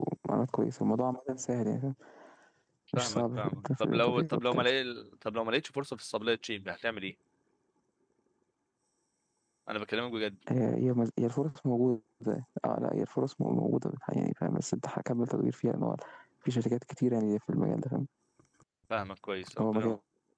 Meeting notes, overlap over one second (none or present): present